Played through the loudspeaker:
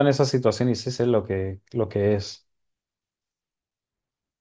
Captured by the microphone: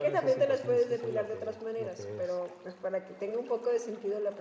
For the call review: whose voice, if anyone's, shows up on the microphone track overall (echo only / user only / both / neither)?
both